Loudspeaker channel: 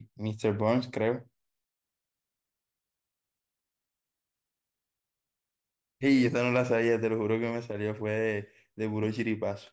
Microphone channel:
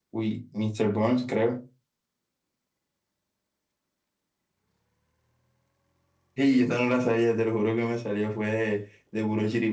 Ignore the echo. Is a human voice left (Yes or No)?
No